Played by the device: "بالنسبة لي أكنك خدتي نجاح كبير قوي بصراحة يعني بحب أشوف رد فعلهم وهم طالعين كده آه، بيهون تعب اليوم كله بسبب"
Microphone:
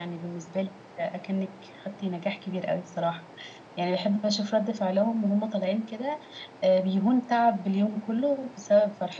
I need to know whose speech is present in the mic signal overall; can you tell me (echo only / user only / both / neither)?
echo only